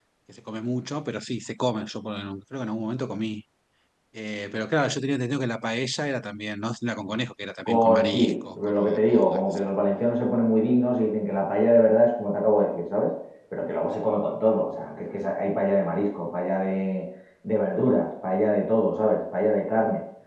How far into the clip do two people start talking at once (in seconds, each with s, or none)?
7.6 s